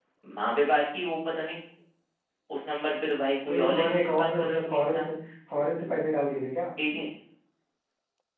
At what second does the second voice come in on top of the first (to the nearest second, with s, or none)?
3 s